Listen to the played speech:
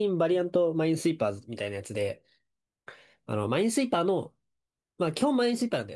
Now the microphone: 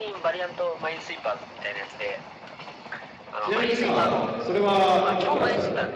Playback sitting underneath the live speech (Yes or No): Yes